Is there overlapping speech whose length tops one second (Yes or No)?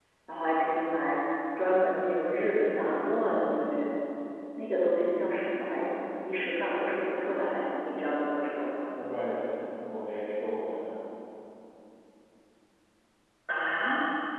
No